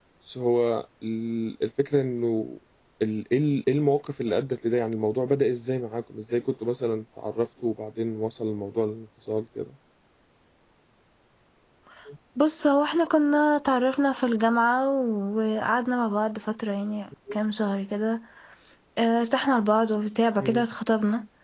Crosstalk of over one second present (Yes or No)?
No